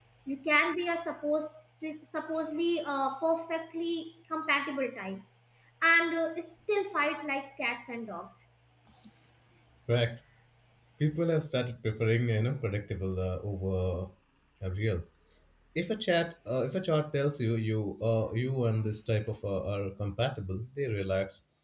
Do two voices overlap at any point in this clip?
No

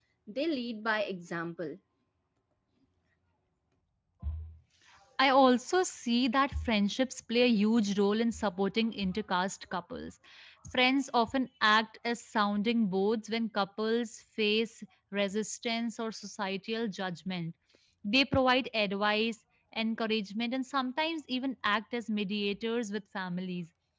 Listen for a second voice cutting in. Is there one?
No

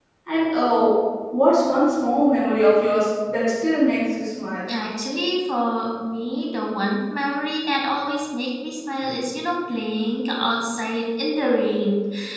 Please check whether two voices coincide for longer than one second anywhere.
No

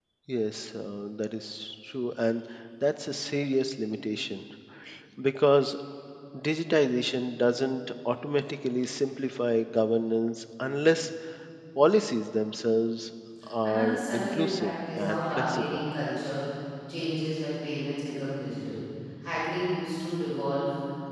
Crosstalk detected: Yes, from 13.6 s

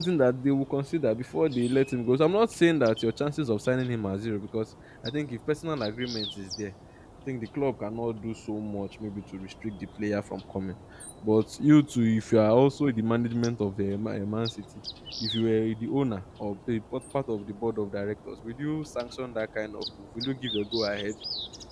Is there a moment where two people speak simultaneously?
No

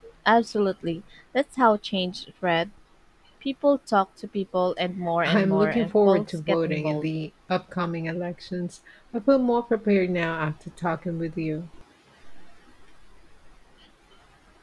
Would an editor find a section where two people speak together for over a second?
Yes, from 5.2 s

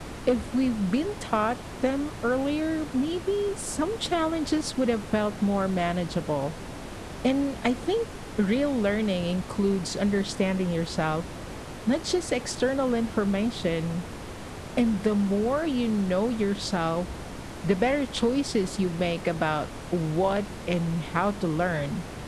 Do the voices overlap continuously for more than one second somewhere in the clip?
No

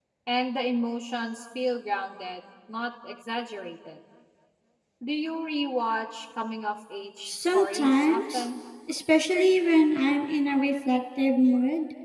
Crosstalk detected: Yes, from 7.2 s

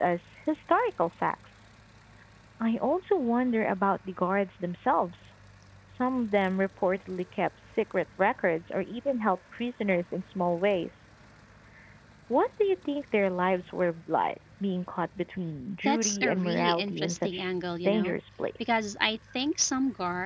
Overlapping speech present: Yes, from 15.8 s

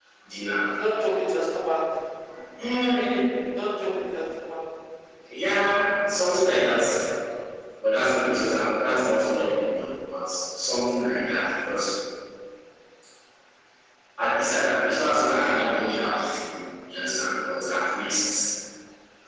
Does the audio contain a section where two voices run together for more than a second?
No

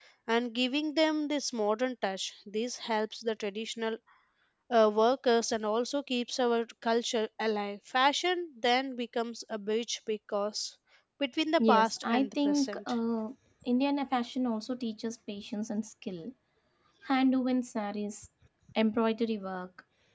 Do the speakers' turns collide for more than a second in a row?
Yes, from 11.6 s

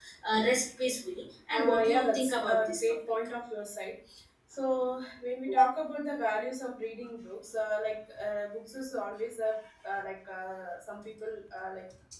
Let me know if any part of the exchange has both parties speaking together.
Yes, from 1.5 s

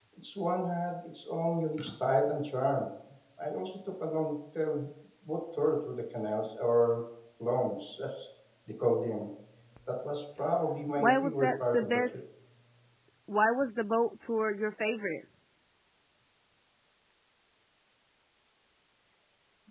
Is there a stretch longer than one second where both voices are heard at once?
Yes, from 11.0 s

